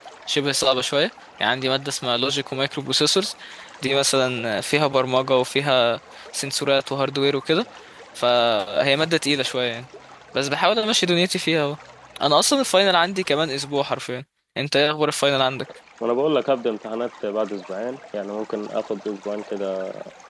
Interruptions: none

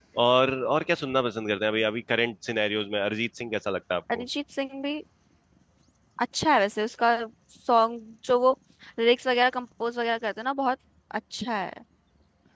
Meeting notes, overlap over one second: none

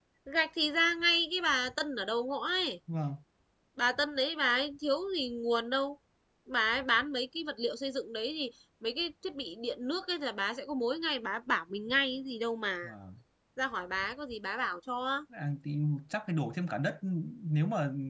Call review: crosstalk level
none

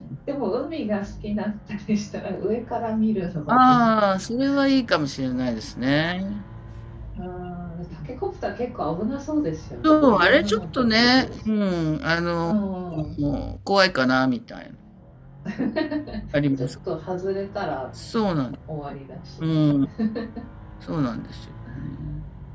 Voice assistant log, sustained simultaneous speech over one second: present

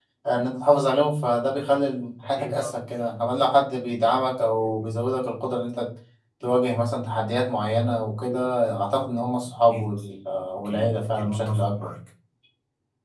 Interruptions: present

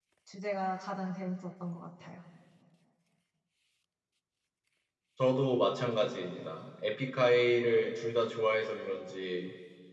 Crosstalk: none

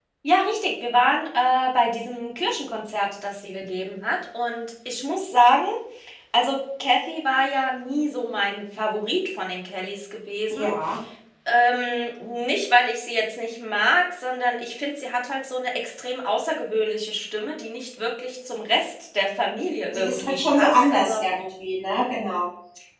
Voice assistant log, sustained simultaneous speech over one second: present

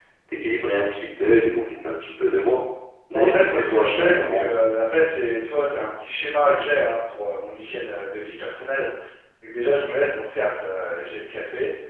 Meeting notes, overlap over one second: present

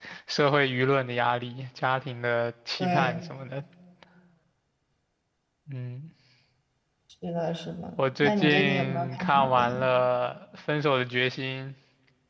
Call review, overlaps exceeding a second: present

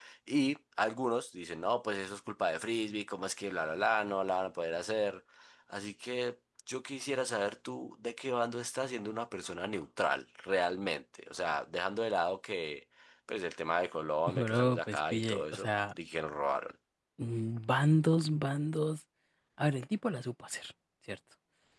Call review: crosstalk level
present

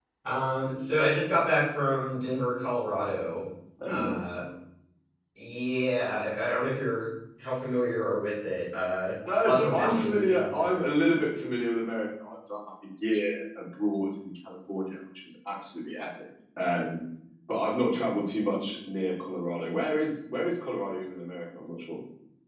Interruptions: present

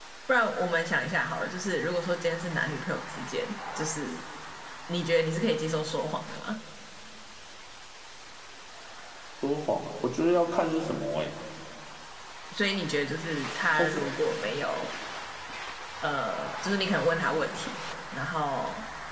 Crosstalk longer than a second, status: none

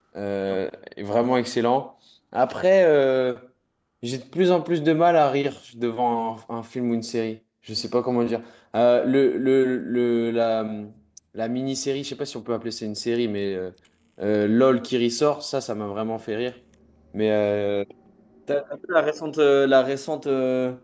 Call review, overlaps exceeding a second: none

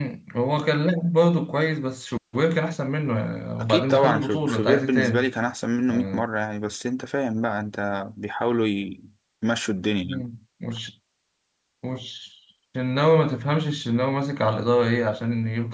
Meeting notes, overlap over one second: present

